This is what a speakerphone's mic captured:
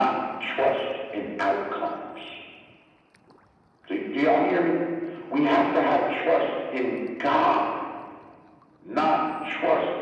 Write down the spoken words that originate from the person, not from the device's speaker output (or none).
none